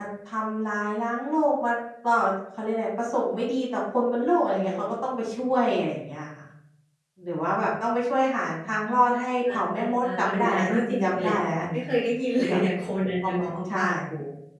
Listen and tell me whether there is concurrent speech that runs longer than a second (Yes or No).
Yes